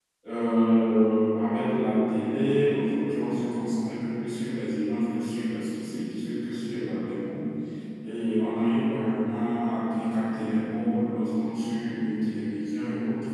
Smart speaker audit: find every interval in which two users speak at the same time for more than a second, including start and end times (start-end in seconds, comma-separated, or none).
none